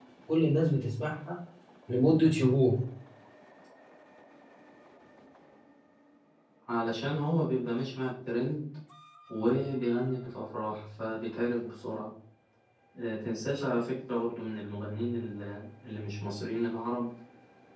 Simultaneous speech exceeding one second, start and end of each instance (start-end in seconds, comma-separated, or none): none